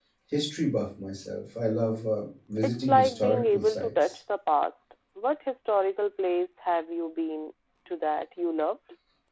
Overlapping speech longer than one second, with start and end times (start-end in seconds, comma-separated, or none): 2.6-4.2